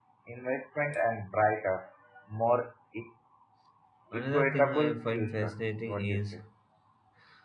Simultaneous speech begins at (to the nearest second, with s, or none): 4 s